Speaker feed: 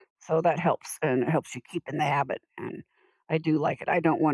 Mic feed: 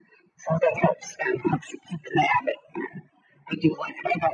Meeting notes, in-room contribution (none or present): none